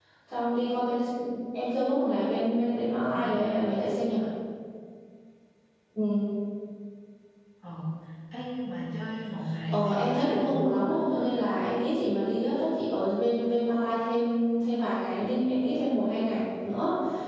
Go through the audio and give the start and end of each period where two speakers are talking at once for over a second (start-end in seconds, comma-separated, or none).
9.7-10.9